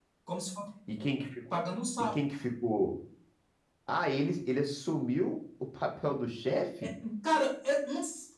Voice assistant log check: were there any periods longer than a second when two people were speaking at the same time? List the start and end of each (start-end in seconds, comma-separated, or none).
none